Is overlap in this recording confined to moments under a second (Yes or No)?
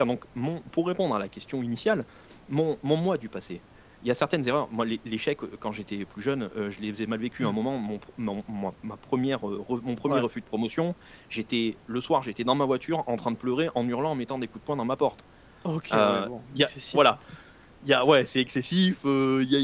No